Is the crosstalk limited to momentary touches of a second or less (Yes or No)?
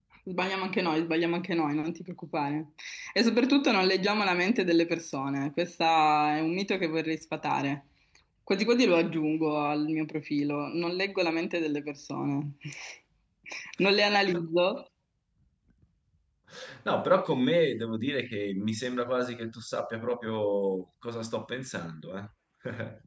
Yes